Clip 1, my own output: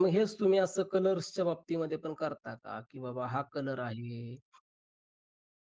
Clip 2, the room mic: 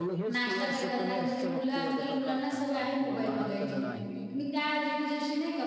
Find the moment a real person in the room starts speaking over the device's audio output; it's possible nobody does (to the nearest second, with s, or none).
0 s